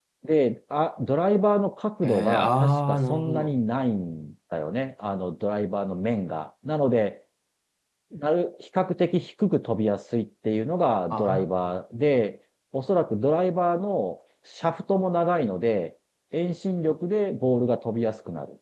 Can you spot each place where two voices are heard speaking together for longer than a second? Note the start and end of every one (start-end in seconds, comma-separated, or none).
2.0-3.6